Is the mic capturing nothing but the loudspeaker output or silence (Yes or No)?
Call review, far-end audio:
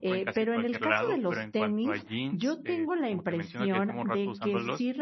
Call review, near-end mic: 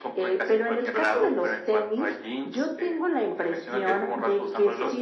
Yes